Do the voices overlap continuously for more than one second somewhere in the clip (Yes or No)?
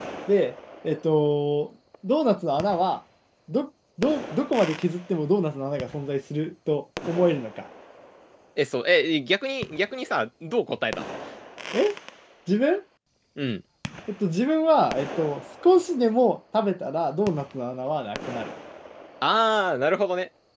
No